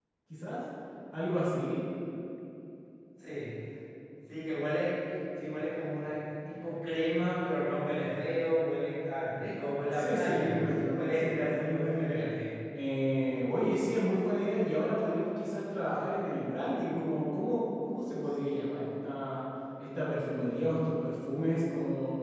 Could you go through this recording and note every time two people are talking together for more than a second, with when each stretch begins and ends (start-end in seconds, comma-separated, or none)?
9.9-12.3